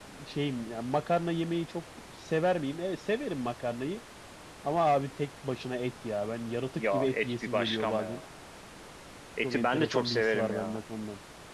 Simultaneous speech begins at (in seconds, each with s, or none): 6.8 s